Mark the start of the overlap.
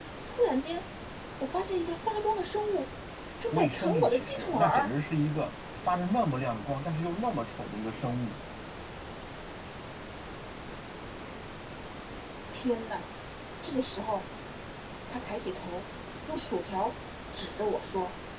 3.5 s

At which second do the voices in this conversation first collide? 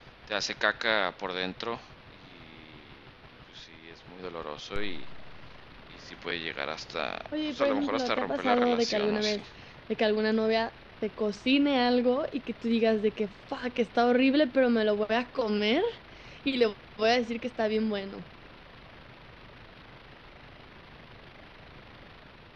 7.3 s

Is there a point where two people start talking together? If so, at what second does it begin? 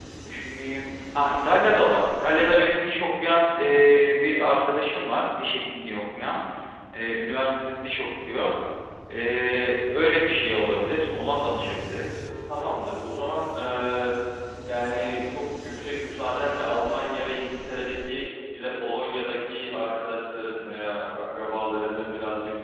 none

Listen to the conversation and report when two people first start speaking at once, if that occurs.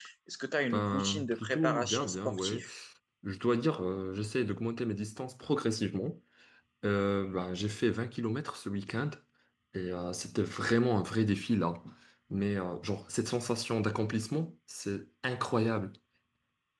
0.7 s

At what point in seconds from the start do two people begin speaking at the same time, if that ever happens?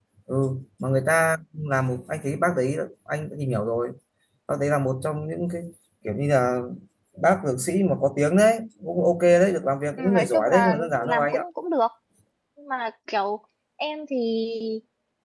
10.0 s

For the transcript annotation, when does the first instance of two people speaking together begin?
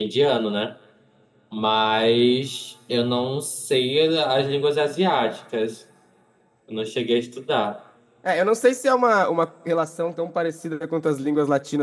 none

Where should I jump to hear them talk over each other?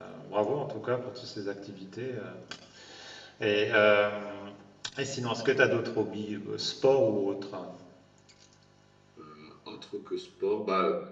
none

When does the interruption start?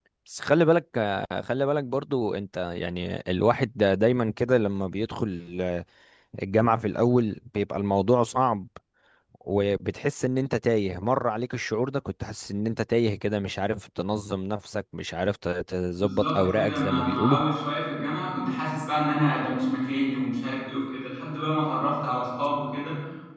16.0 s

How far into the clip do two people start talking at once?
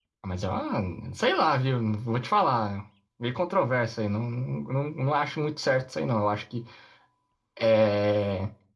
none

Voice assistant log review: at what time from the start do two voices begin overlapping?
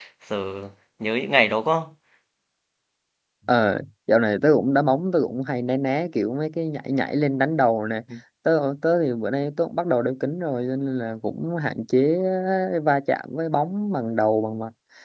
none

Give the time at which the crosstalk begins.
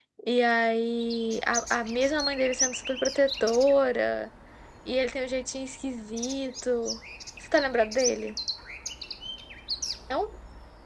none

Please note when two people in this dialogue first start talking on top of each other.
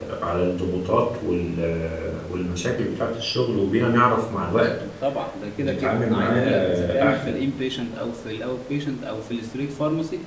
5.6 s

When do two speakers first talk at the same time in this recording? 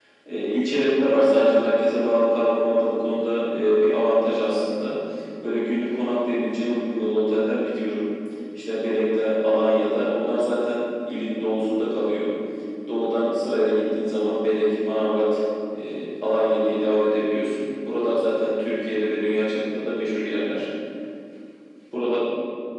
none

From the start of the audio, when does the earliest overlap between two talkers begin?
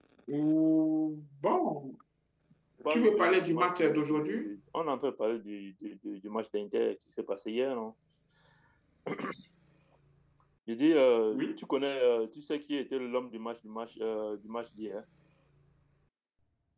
2.9 s

